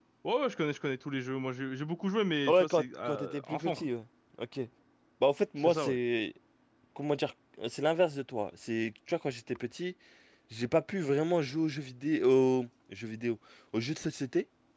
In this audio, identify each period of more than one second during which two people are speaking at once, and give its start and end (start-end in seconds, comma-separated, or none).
2.5-3.8